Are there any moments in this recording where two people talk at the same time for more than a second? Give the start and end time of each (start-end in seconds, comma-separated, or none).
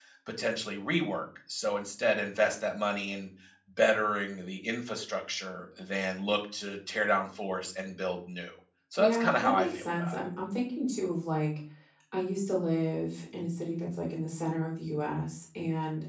9.0-10.2